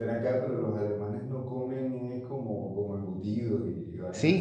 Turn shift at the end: Yes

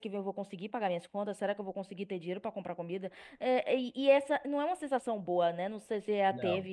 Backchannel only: Yes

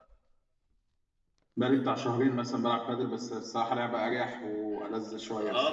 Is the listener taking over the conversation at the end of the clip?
Yes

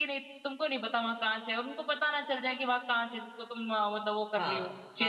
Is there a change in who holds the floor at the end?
Yes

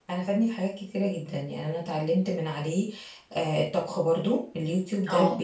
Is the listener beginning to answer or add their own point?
No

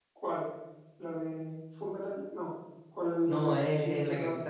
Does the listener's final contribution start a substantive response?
Yes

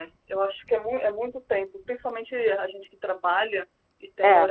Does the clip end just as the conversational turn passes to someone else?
No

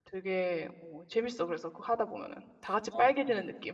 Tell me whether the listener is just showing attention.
No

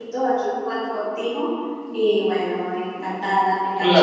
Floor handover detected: No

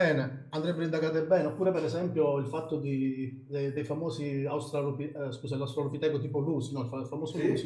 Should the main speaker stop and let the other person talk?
No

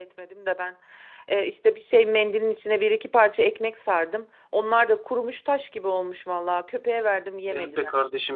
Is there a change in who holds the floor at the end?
Yes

